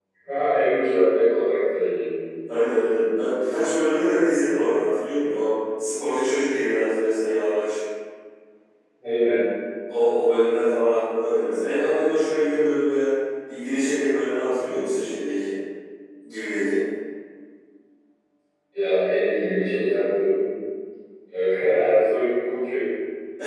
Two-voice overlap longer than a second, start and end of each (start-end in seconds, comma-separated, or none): none